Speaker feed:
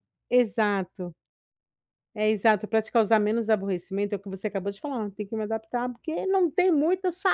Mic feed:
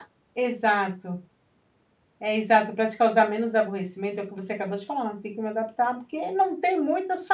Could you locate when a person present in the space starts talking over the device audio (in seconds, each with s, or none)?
none